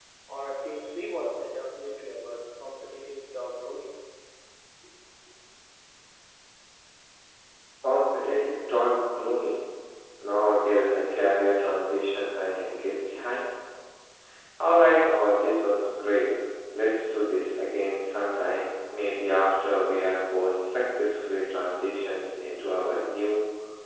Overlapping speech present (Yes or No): No